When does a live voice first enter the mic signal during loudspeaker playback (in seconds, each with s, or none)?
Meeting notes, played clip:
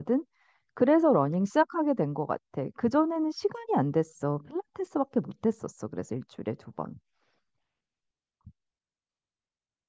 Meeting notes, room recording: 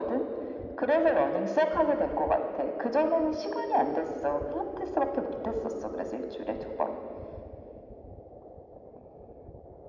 none